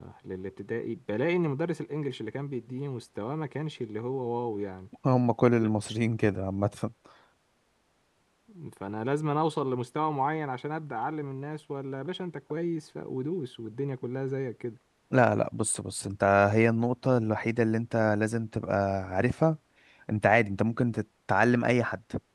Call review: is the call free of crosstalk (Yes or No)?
Yes